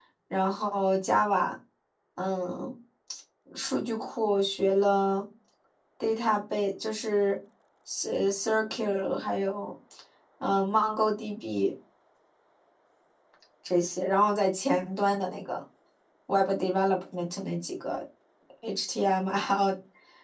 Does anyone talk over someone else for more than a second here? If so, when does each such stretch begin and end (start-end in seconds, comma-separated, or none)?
none